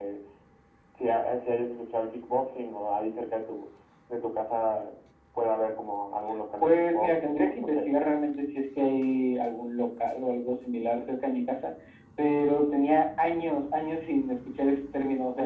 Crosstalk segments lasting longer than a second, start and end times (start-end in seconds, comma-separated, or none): 6.6-7.9